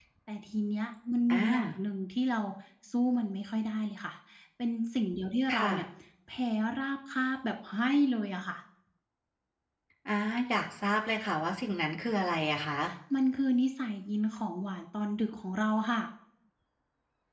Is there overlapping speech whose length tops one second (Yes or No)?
No